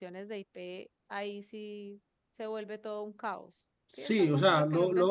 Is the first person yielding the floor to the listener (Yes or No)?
Yes